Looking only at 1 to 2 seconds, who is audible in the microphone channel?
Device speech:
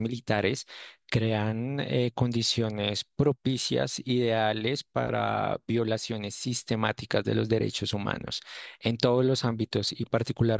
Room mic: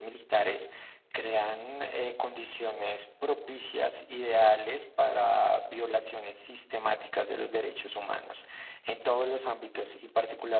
echo only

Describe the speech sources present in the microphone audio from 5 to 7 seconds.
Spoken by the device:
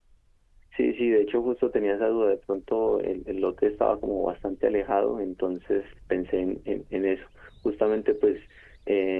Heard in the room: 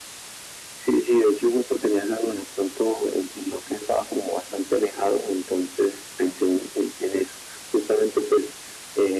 echo only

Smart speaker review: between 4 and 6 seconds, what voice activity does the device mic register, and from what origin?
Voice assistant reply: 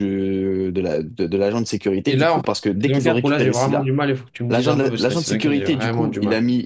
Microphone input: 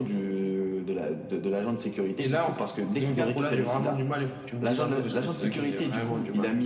echo only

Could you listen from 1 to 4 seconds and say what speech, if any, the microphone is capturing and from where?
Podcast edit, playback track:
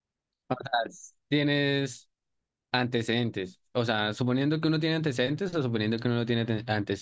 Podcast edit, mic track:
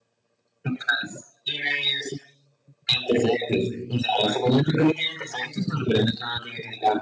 echo only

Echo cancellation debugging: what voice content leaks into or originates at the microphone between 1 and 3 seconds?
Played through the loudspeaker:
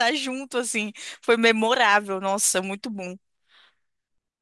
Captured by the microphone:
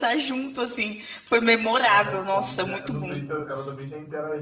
both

